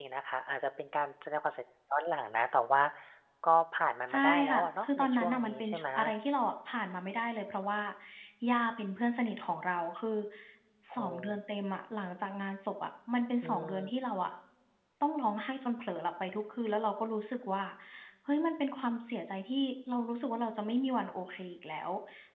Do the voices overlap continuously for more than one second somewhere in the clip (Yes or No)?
Yes